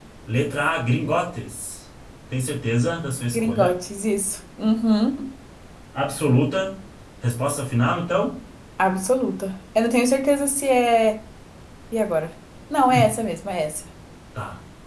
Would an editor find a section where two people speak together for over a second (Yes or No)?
No